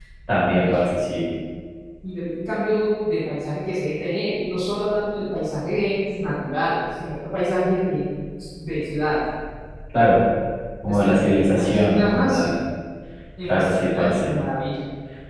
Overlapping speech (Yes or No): Yes